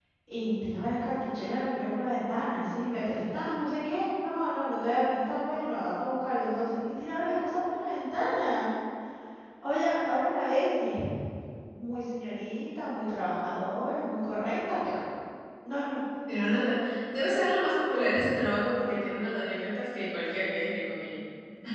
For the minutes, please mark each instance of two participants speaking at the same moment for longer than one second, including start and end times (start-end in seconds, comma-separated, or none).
none